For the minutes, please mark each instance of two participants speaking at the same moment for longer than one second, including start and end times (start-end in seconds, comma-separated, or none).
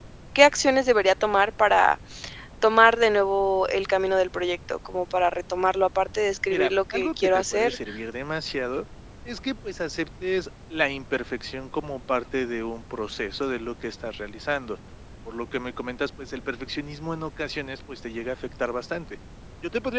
6.5-7.8